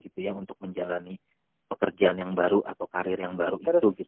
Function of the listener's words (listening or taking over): taking over